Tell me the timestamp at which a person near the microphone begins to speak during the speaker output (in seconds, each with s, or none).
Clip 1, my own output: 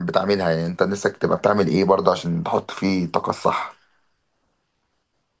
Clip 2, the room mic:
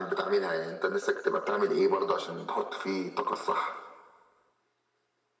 none